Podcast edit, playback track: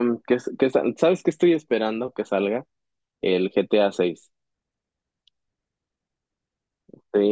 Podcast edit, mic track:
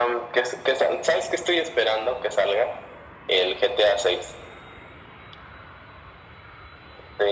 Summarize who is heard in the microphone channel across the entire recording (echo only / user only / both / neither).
echo only